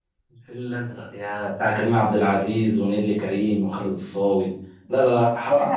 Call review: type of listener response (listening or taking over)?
taking over